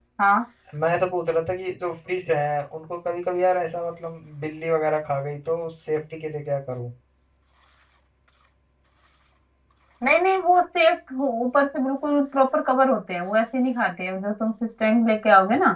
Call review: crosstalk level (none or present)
none